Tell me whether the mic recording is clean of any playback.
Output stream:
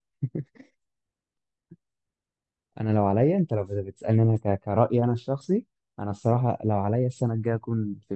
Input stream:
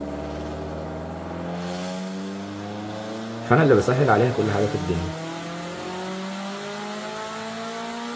Yes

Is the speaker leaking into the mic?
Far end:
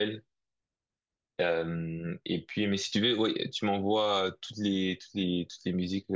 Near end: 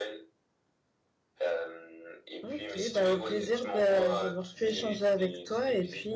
Yes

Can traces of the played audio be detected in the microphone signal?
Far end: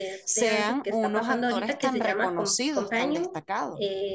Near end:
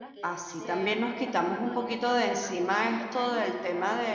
Yes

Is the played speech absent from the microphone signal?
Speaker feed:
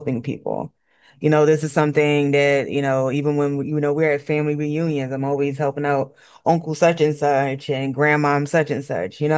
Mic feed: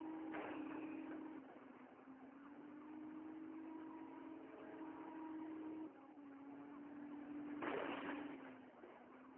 Yes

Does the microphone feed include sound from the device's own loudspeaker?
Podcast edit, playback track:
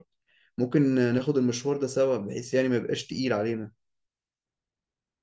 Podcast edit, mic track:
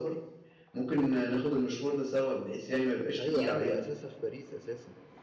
Yes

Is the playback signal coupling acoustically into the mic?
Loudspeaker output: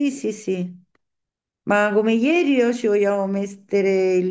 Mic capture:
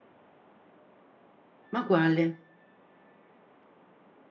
No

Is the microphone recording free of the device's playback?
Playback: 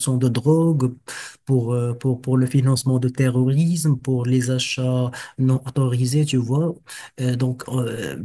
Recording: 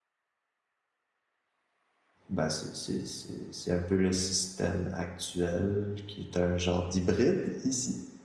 Yes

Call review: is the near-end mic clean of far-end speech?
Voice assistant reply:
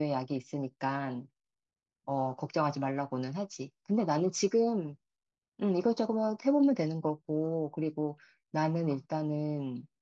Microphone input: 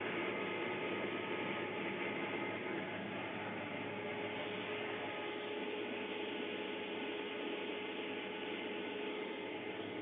Yes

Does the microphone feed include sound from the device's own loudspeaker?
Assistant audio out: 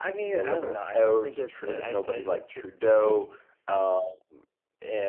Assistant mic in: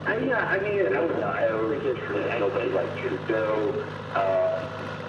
Yes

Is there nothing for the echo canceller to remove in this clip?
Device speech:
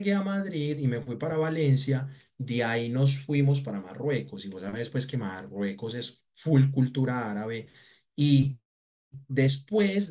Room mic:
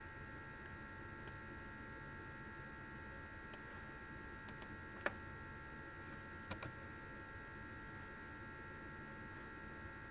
Yes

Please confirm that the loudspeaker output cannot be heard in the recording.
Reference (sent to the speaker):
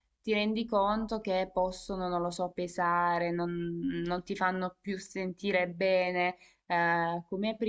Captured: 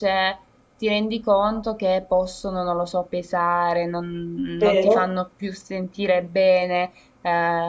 No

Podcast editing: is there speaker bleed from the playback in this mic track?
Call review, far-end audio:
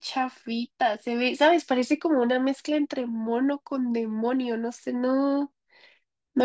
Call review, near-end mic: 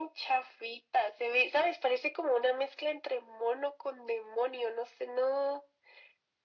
Yes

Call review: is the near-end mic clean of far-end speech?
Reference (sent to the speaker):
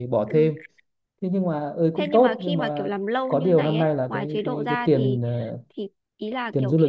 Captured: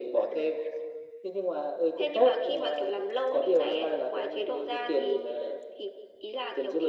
No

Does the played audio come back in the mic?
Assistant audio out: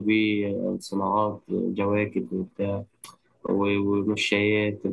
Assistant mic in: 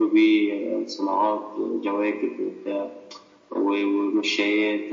Yes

